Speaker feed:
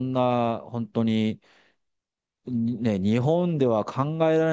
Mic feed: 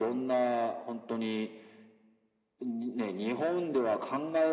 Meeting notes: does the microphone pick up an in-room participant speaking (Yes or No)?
No